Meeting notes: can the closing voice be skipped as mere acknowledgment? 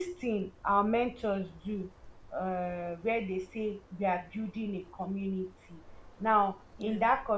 Yes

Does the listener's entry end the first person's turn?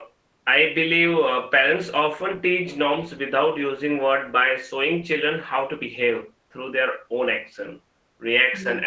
No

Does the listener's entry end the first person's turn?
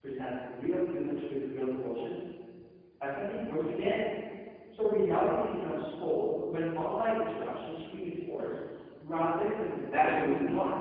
Yes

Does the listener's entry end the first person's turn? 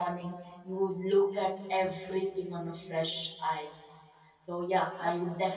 No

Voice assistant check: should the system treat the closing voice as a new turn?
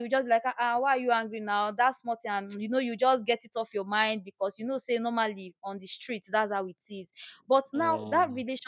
No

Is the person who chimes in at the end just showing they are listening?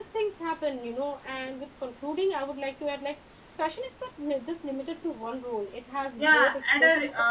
No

